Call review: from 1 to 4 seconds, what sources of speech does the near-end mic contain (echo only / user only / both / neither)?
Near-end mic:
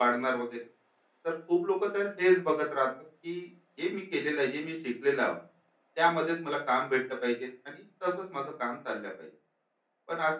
user only